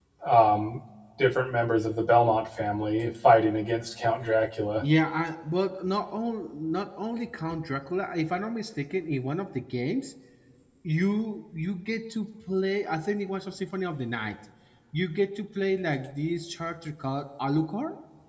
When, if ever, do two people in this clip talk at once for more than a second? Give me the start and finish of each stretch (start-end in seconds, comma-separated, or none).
none